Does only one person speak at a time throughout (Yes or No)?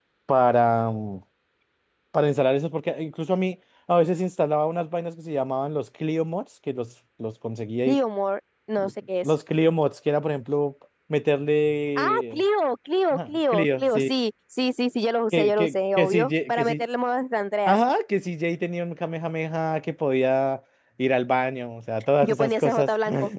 No